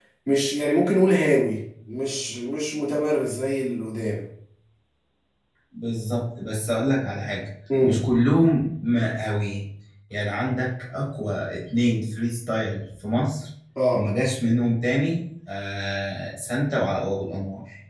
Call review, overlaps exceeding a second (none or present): none